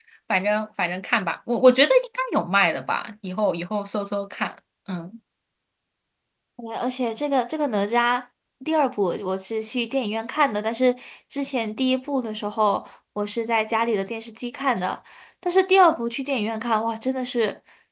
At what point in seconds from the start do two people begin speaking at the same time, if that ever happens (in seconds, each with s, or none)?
none